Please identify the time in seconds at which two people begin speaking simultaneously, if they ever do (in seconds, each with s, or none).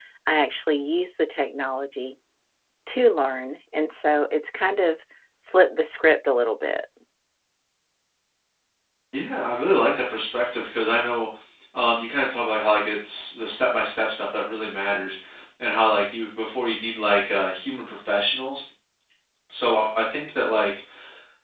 none